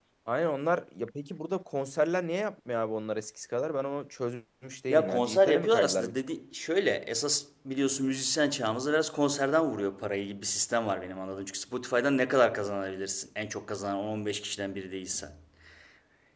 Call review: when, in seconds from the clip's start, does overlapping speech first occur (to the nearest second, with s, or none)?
5 s